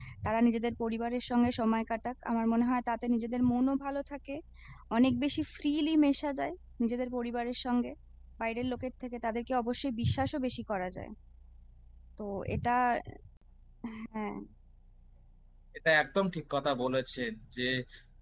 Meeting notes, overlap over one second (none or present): none